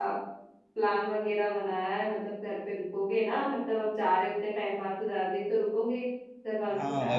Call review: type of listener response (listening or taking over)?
taking over